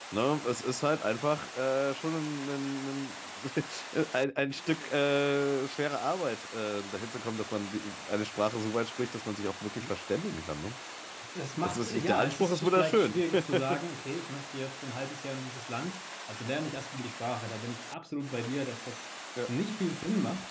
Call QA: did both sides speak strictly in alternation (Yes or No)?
No